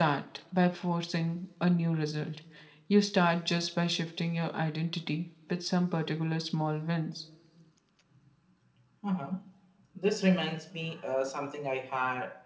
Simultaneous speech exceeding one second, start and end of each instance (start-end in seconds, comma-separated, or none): none